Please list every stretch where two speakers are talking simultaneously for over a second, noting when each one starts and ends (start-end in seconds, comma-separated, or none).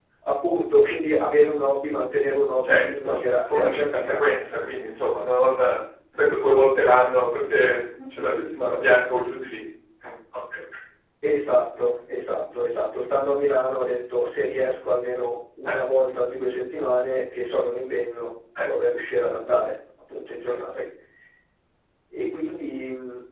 2.6-4.2